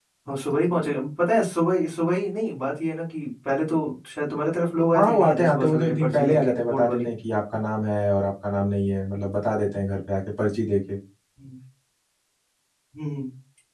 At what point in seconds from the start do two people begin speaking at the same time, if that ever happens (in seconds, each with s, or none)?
4.9 s